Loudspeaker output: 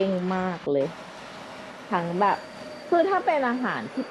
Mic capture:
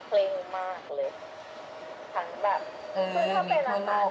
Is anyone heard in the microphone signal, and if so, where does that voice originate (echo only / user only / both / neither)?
both